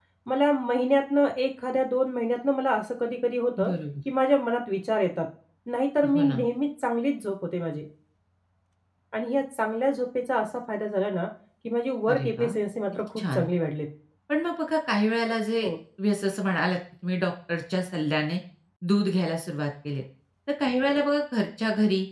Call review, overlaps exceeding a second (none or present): none